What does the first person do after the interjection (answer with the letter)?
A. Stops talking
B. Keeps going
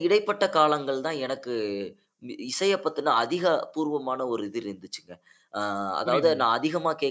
B